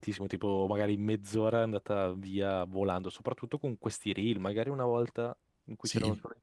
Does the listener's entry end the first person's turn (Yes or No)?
No